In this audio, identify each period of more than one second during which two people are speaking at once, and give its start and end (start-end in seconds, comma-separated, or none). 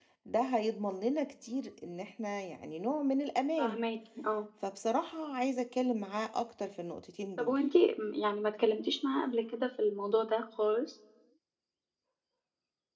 none